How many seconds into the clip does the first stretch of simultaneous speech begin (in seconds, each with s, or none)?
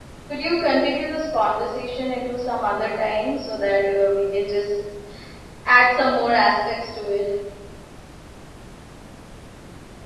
none